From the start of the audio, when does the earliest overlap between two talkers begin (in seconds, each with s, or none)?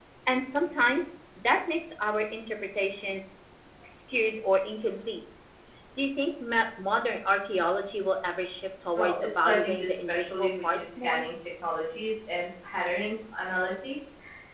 8.9 s